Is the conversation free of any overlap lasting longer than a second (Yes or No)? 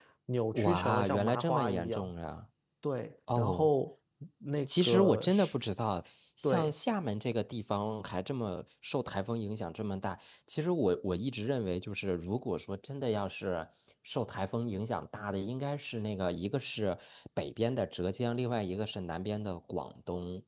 No